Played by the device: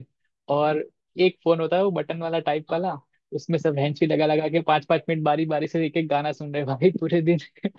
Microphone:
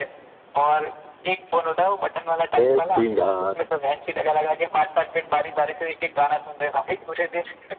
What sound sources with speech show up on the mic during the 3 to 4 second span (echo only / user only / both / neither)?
both